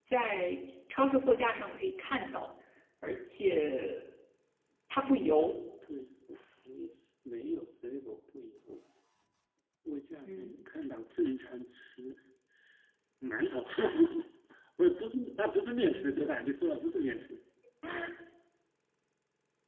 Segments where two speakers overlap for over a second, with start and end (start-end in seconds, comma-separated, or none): none